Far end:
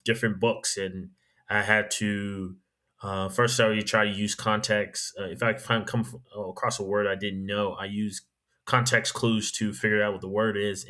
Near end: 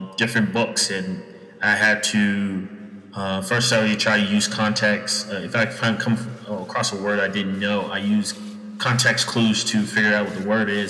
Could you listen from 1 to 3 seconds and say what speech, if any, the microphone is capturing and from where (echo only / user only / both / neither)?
echo only